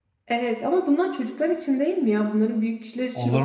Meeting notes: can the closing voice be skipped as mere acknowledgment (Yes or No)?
No